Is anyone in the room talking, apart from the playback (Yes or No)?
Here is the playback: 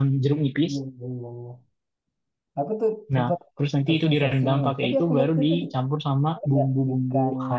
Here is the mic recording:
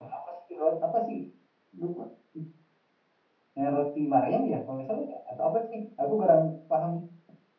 Yes